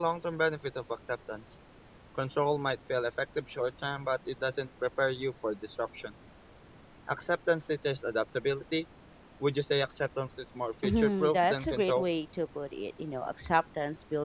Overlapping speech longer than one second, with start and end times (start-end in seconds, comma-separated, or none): 10.8-12.0